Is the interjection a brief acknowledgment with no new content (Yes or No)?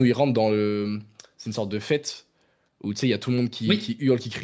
Yes